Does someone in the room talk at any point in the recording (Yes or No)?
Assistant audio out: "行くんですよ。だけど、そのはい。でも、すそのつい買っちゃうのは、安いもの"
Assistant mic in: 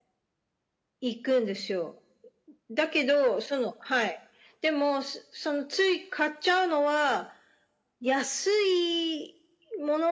No